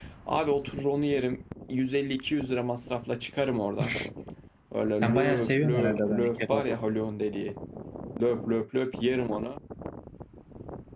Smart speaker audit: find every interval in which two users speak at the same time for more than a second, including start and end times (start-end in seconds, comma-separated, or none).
5.0-6.7